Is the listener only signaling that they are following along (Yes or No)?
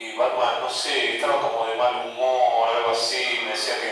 Yes